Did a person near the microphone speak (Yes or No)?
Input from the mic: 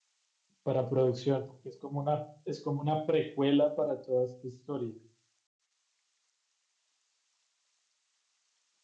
Yes